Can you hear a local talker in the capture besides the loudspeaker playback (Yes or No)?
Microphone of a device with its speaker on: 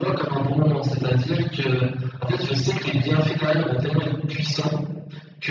No